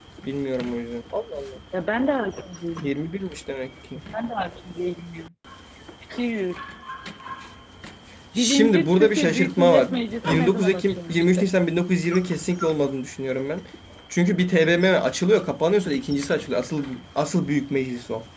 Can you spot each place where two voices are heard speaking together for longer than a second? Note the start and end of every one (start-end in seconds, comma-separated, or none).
8.3-11.5